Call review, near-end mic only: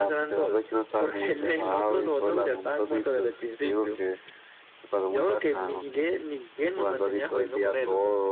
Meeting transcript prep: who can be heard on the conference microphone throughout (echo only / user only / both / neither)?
echo only